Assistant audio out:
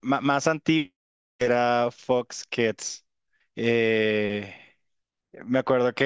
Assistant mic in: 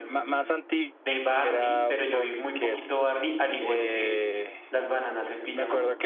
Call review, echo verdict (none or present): present